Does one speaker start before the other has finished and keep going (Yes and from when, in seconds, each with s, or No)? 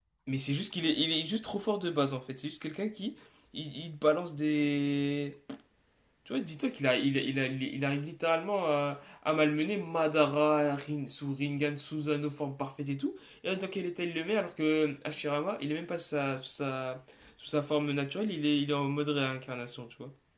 No